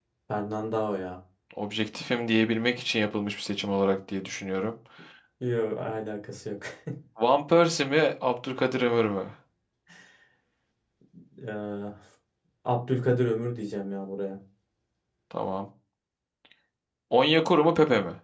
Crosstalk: none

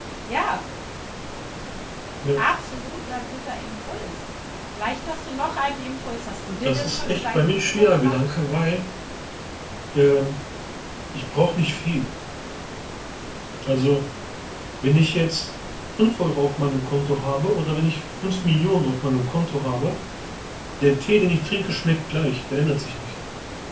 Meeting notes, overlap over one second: present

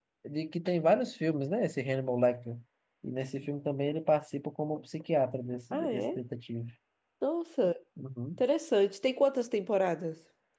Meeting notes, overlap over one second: none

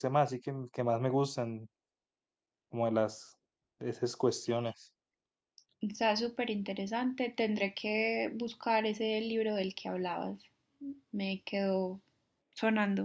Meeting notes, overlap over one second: none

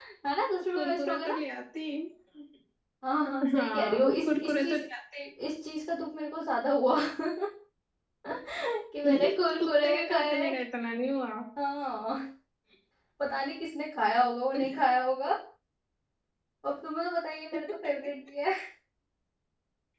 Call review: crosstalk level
present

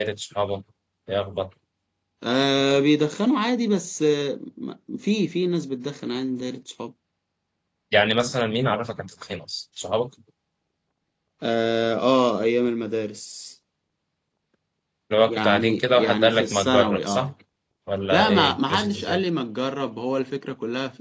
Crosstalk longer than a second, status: present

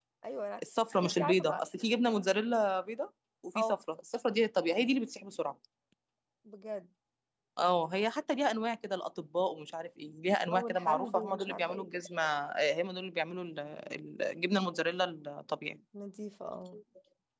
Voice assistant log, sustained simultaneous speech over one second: present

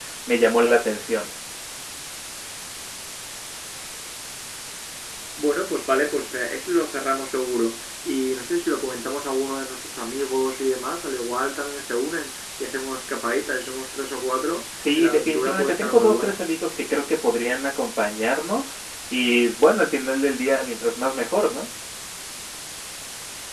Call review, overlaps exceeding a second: present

